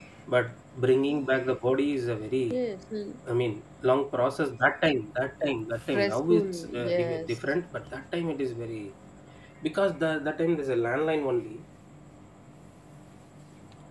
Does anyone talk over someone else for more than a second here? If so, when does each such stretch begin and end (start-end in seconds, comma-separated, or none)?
5.9-7.4